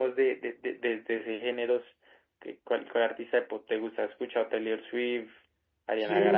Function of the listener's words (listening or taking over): taking over